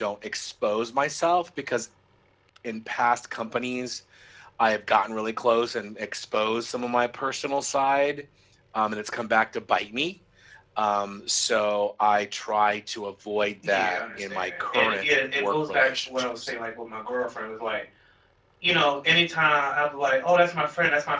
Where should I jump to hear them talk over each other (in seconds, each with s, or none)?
13.6 s